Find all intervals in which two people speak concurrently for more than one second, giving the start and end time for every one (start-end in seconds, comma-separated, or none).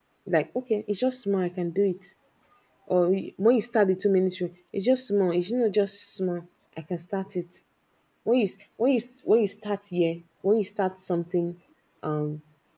none